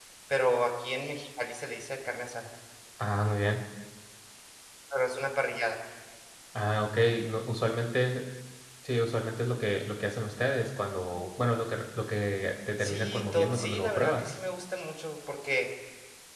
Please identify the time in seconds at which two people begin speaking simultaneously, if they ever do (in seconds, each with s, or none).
12.8 s